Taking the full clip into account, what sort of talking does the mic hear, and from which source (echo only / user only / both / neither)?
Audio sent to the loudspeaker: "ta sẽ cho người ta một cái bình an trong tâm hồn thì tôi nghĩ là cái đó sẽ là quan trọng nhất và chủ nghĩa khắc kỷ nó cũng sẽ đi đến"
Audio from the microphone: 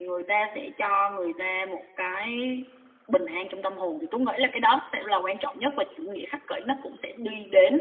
echo only